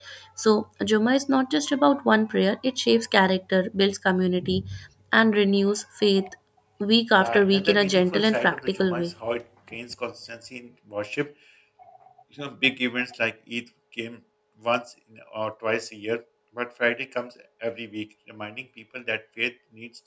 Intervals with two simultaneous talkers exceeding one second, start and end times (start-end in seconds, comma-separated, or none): 7.2-9.1